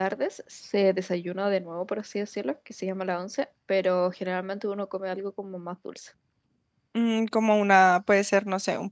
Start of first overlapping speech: none

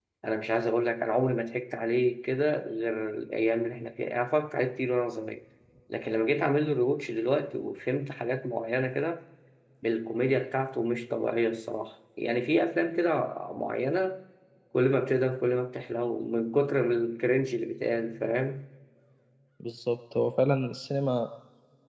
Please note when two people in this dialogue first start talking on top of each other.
none

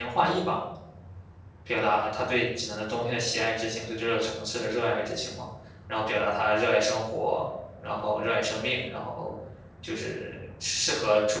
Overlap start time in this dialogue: none

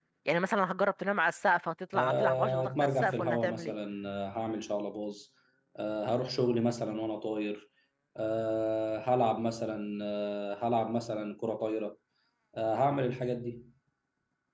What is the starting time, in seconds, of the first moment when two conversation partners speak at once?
1.9 s

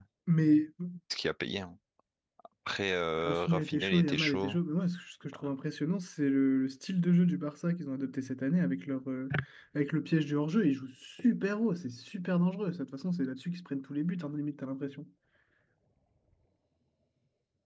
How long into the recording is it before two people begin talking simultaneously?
3.1 s

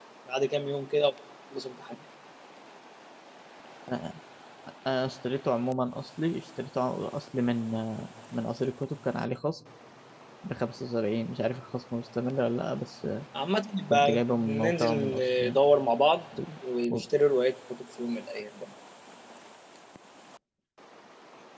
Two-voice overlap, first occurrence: 13.9 s

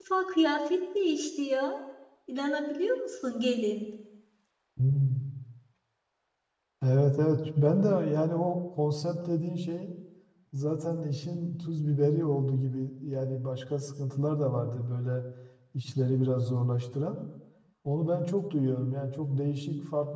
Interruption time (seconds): none

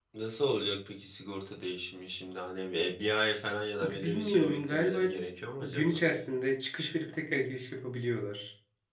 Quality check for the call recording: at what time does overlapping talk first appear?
3.8 s

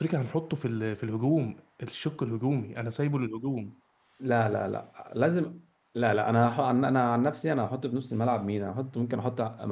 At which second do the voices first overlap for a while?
none

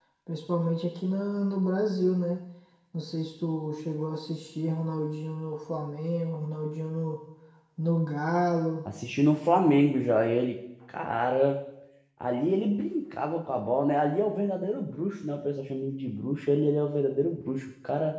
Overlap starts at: none

